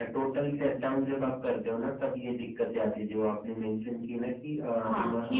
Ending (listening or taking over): taking over